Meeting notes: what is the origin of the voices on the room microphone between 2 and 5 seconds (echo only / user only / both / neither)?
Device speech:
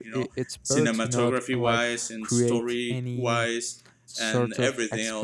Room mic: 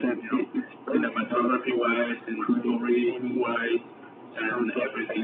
echo only